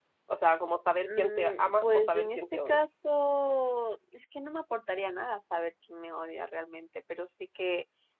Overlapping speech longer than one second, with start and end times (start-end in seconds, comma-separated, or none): 1.0-2.8